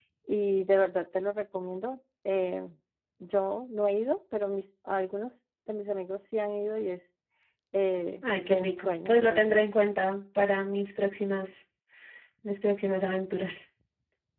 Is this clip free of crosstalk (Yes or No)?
No